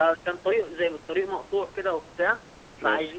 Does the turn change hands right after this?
No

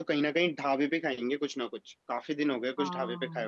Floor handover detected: Yes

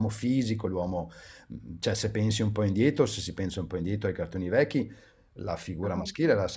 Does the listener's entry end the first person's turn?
No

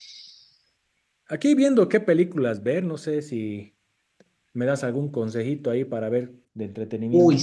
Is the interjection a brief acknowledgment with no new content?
No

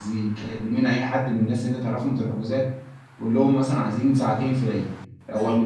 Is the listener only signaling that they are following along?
Yes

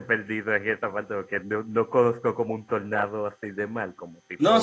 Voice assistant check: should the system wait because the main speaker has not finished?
No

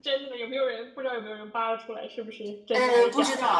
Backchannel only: No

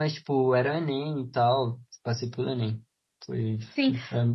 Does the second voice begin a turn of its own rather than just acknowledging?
Yes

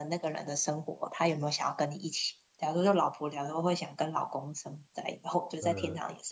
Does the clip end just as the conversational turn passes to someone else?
No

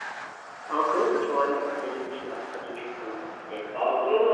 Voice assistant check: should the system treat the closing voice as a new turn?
Yes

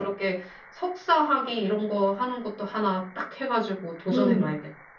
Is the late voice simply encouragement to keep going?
No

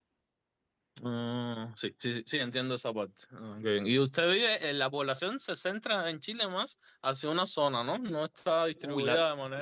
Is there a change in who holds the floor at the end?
Yes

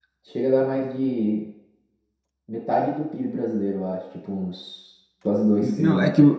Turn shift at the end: Yes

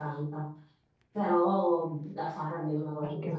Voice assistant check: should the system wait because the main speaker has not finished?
Yes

